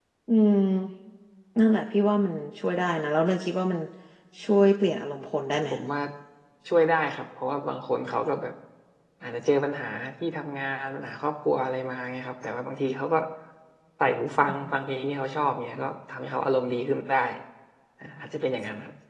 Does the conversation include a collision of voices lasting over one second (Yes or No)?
No